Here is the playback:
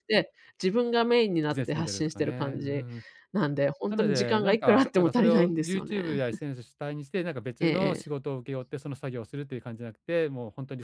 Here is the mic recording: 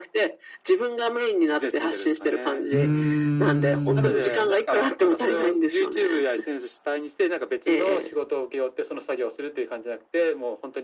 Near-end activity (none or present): present